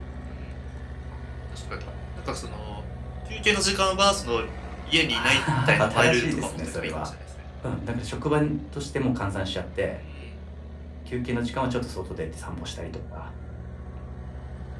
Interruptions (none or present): present